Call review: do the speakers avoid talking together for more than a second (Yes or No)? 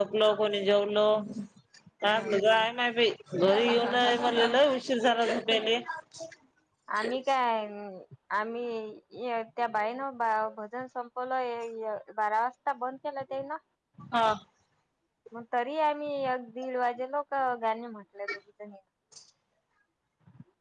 Yes